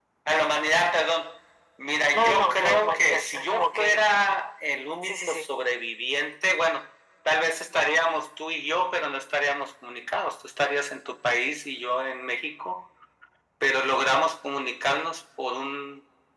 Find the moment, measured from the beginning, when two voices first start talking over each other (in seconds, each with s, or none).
2.1 s